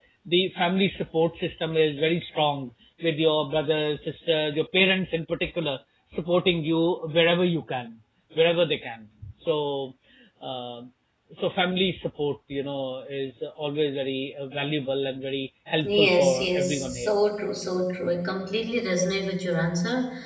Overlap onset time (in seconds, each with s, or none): 15.8 s